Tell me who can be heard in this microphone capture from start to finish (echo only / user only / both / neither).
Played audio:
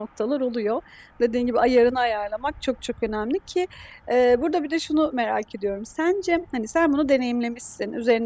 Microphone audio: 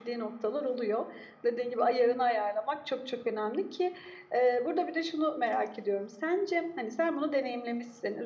echo only